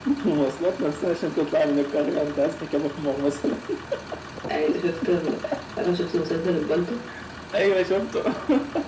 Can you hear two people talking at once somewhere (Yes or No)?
No